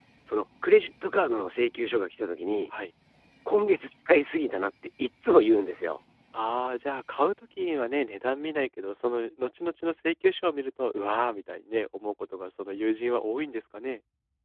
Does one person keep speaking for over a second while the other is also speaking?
No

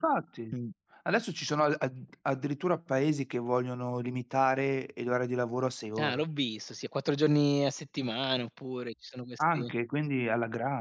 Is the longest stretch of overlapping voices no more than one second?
Yes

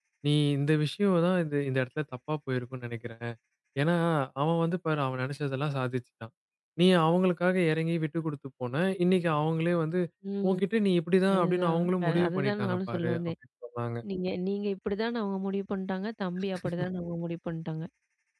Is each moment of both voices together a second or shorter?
No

